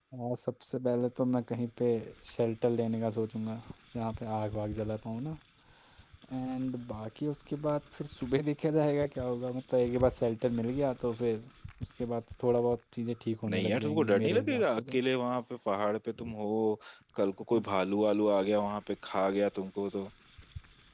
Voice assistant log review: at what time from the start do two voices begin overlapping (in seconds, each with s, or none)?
13.4 s